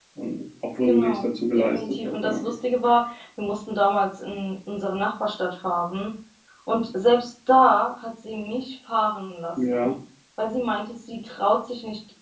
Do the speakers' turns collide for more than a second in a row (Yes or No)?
Yes